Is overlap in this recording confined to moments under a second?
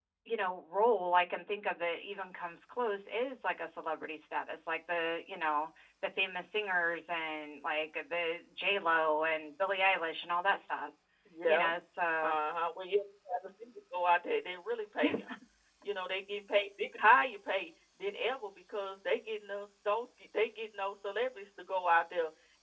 Yes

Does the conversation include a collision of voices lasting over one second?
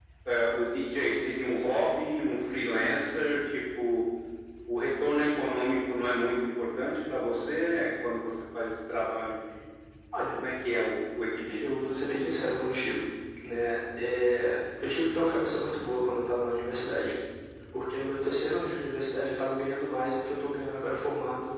No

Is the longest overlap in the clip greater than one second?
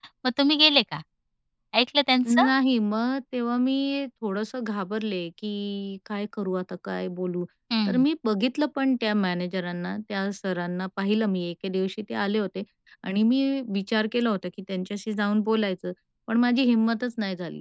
No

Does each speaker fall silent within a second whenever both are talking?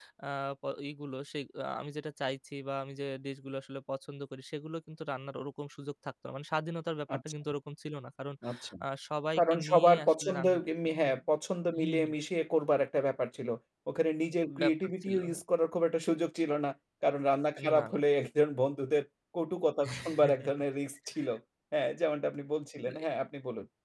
No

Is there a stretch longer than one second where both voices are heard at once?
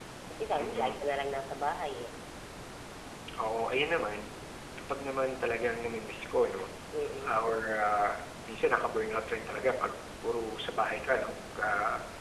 No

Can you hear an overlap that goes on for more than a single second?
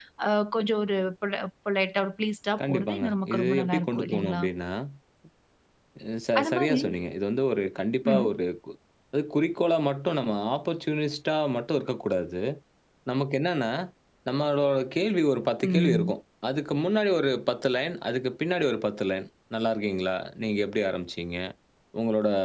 Yes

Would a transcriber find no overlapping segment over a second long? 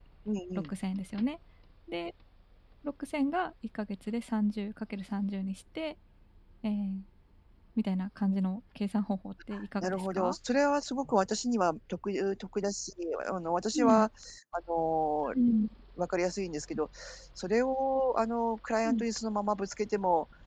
Yes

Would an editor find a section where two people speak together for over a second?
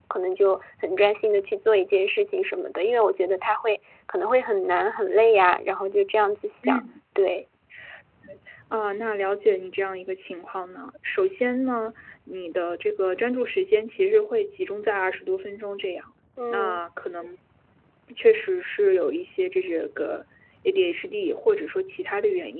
No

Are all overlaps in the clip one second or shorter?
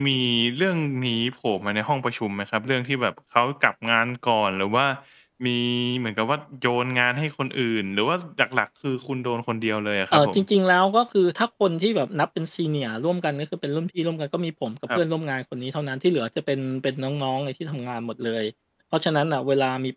Yes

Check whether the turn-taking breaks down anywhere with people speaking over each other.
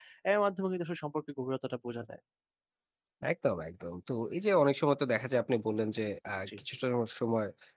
No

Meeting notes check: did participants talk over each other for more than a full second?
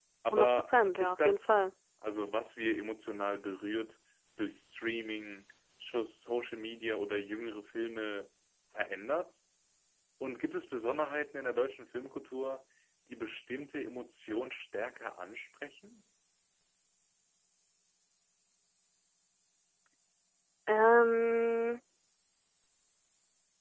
Yes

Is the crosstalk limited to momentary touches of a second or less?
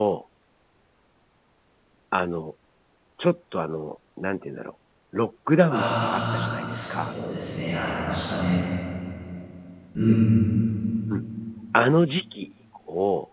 No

